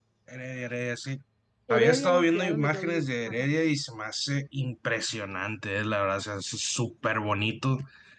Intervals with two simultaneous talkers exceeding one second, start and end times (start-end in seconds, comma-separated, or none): 1.7-3.5